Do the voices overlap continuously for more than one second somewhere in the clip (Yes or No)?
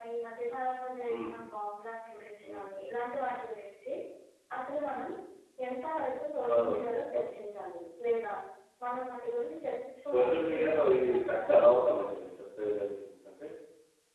Yes